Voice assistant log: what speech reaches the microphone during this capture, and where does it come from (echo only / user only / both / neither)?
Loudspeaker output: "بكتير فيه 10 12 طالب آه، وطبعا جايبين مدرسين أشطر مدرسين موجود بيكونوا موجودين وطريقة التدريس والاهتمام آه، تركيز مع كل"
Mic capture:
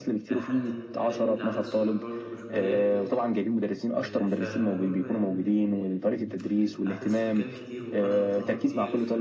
both